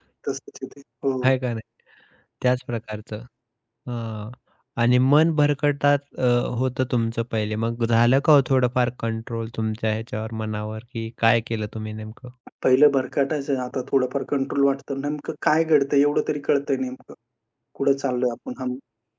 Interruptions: none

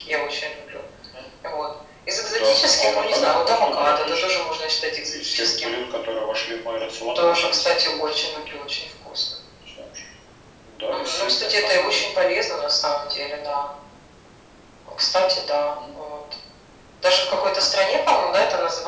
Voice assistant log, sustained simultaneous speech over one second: present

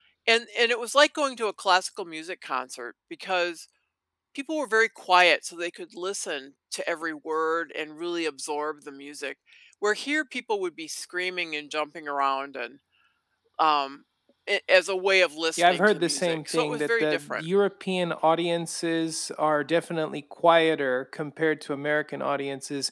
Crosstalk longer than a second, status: present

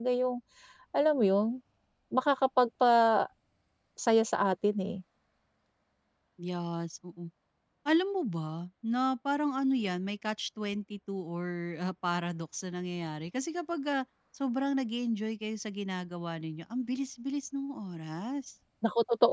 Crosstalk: none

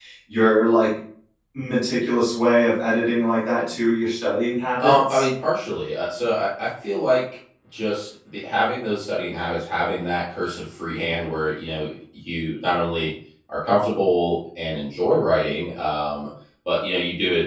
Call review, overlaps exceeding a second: none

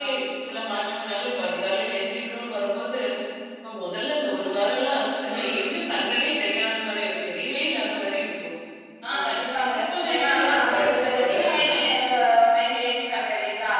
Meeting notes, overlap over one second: present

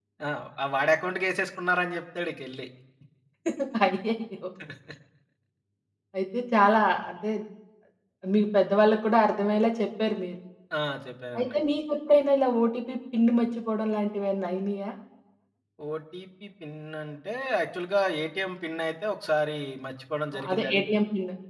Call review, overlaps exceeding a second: none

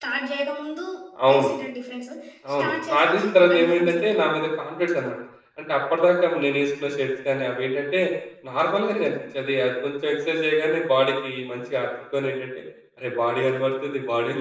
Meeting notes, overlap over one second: present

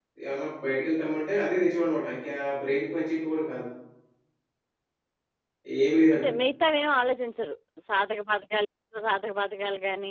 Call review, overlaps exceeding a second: none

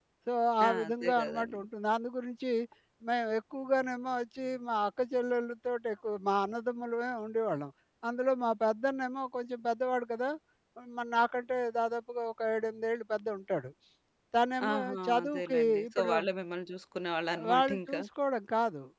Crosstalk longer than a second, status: present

